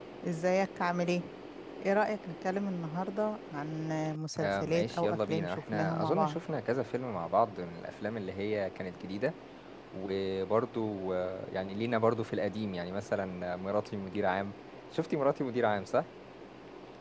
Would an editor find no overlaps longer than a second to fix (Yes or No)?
No